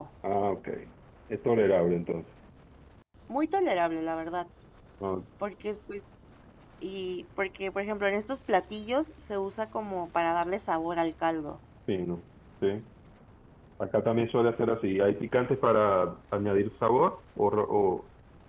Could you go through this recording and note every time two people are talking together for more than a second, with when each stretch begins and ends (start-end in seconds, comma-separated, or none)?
none